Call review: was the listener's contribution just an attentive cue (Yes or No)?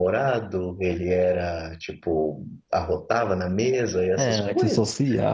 No